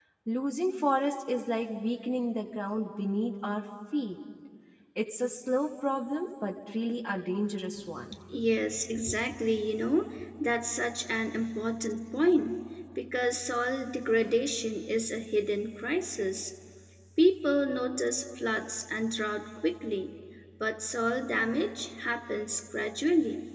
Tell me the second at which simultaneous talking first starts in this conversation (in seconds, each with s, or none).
none